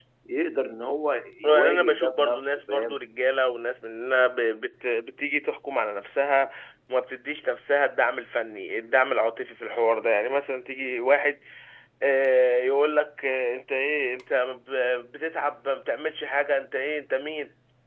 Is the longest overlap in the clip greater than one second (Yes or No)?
Yes